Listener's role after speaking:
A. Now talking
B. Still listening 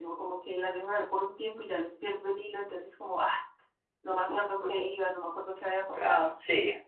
A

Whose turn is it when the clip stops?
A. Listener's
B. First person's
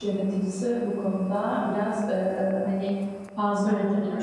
B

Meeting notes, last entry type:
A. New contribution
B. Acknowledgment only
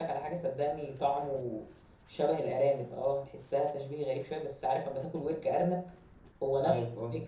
B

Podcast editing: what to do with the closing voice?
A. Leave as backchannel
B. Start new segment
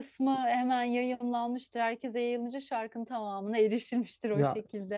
B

